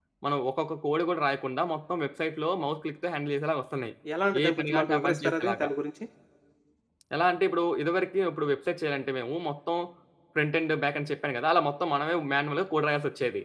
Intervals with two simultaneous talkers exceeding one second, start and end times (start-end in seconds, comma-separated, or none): 4.4-5.7